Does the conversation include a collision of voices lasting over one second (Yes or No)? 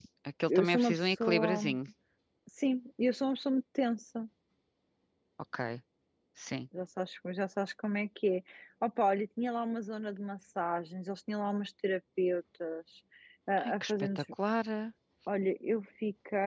Yes